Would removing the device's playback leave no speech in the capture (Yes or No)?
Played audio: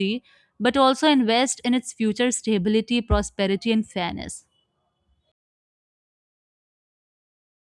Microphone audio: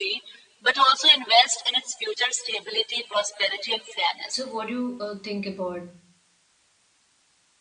No